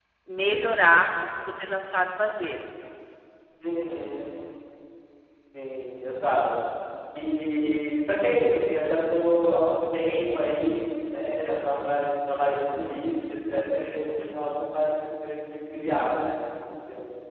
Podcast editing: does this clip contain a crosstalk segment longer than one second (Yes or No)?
No